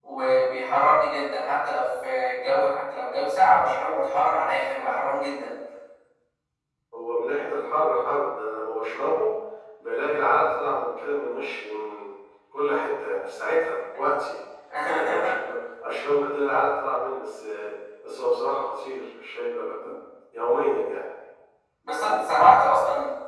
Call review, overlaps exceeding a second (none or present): none